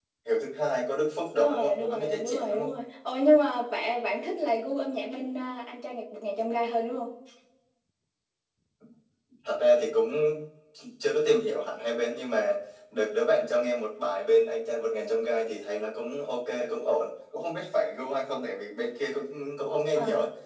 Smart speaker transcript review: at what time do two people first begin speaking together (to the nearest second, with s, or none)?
1 s